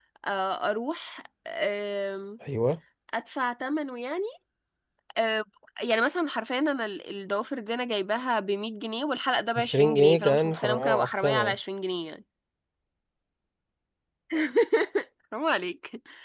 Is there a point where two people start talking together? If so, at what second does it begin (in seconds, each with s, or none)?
9.6 s